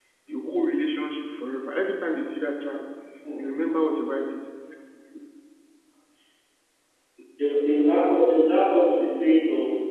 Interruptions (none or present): none